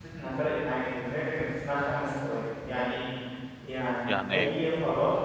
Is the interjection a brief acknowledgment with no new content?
Yes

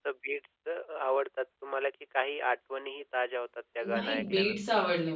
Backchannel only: No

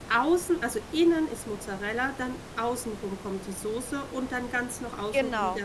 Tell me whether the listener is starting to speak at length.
No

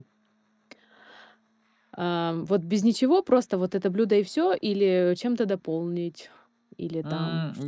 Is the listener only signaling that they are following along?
No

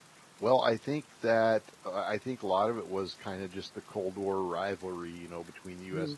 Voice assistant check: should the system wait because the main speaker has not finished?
Yes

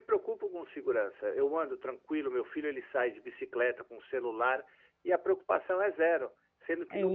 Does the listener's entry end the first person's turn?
No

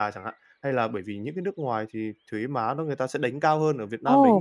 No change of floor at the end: No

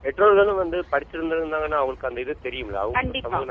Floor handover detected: Yes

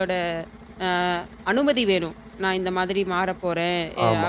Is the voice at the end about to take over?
No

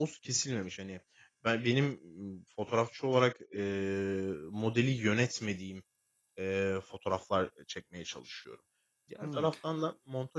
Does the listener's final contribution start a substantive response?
No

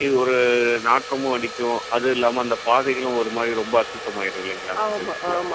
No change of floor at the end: No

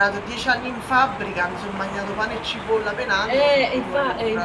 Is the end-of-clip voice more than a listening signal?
Yes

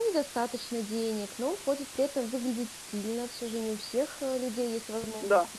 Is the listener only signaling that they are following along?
Yes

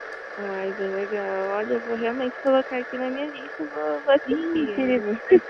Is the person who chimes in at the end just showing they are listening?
No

